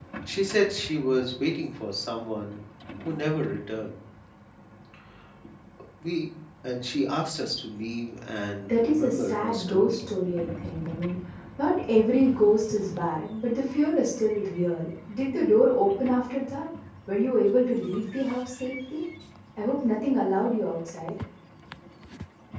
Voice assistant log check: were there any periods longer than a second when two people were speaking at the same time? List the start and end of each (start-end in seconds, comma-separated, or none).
8.7-10.0